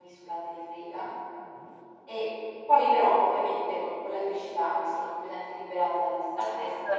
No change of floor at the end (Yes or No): No